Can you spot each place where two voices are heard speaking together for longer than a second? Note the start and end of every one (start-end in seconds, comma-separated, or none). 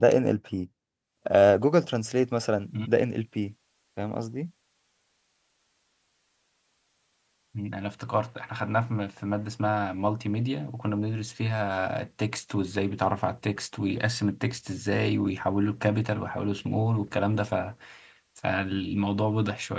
none